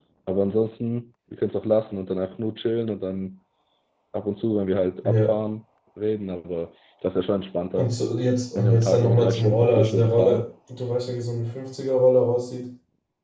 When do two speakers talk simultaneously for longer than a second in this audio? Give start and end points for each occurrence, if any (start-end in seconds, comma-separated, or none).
8.6-10.4